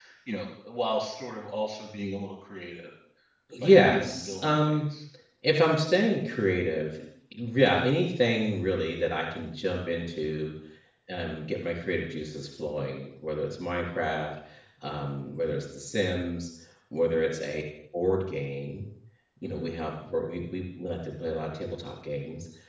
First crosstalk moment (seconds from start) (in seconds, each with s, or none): 3.6 s